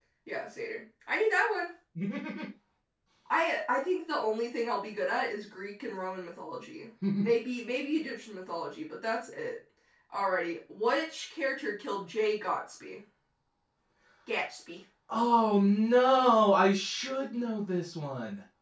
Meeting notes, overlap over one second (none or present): none